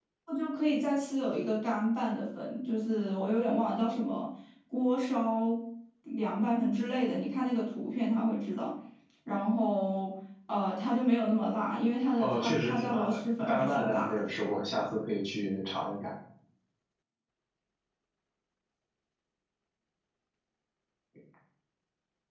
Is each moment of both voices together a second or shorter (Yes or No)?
No